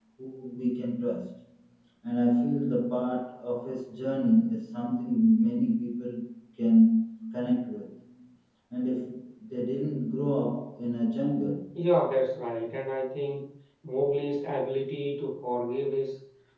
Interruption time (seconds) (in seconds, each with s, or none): none